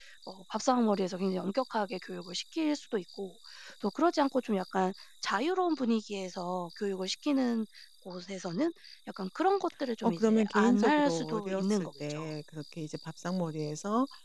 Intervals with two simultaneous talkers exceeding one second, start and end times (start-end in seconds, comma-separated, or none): 10.0-12.3